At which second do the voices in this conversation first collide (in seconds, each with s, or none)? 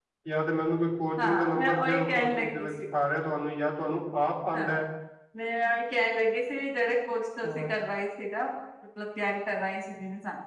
1.2 s